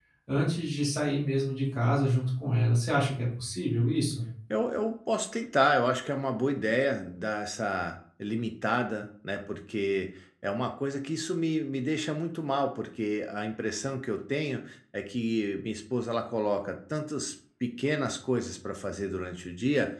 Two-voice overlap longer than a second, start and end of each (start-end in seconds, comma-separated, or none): none